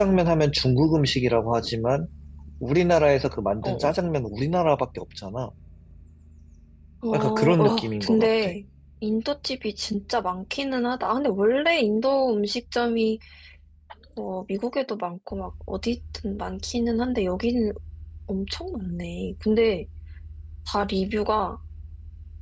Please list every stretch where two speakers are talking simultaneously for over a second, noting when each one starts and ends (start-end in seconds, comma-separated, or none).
7.1-8.5